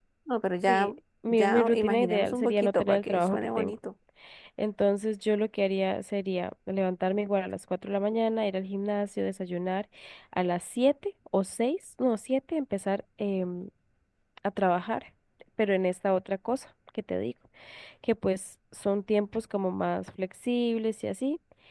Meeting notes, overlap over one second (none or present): present